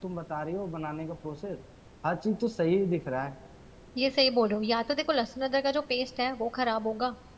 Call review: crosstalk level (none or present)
none